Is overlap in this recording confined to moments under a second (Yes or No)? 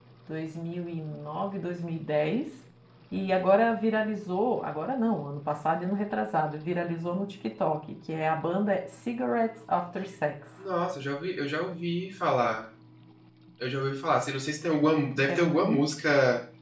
Yes